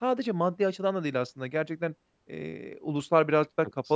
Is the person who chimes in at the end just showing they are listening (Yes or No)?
Yes